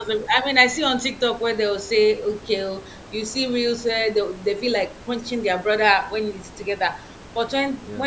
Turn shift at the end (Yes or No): No